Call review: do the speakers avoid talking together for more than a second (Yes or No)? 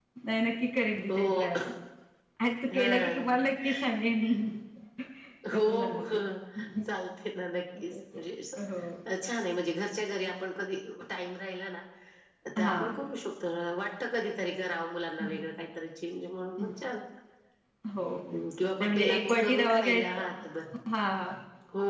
No